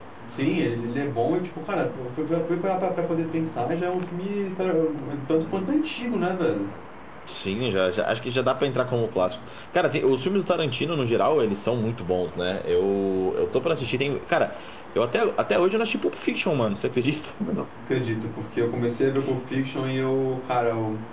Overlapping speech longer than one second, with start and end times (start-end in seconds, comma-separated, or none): none